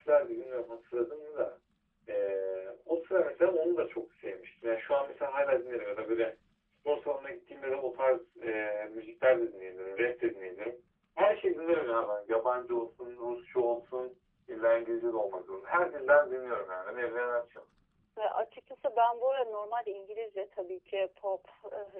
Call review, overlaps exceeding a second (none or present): none